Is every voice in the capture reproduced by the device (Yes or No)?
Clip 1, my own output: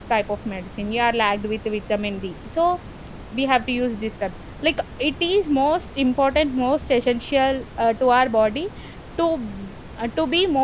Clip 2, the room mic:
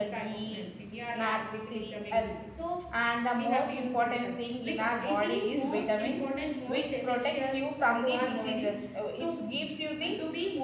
No